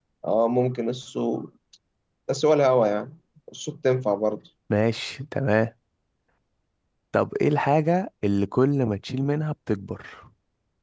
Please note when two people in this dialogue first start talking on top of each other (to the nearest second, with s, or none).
none